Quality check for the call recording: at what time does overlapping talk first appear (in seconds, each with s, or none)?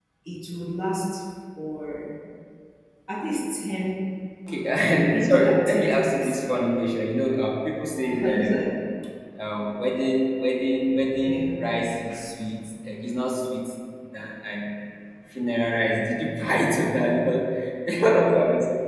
5.0 s